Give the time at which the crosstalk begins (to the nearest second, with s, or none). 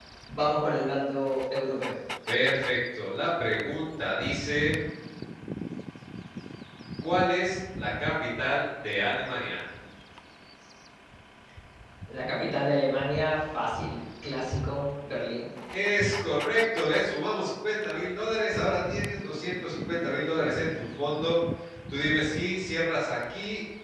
none